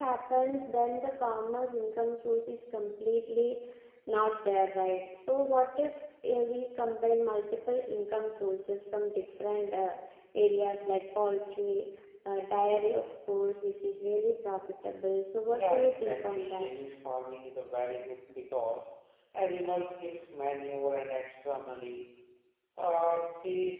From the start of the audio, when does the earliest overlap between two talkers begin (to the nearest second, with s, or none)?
15 s